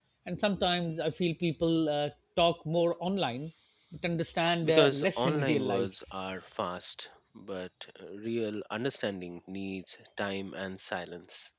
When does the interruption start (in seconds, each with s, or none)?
4.6 s